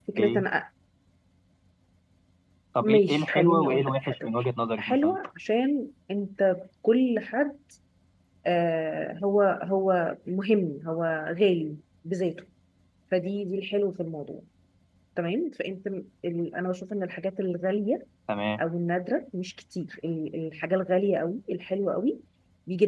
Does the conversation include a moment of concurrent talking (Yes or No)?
Yes